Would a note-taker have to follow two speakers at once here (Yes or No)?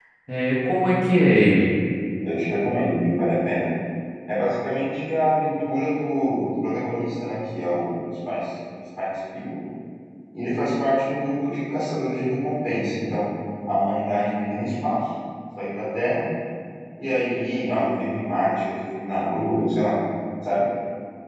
No